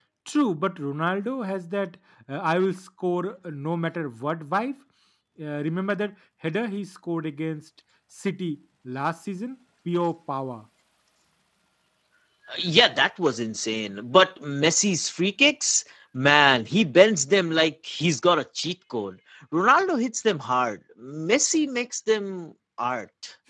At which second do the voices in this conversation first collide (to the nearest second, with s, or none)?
none